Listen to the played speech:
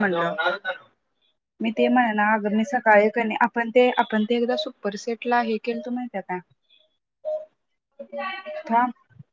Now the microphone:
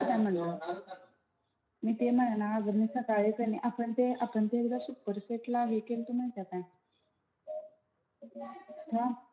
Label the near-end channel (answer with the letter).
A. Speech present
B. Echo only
B